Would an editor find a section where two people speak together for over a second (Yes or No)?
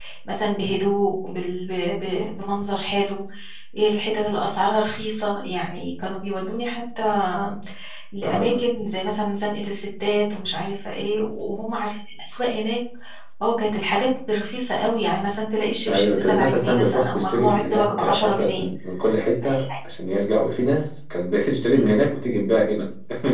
Yes